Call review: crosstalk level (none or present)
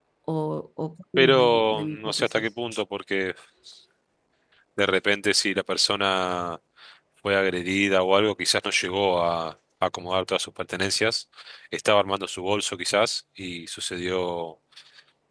present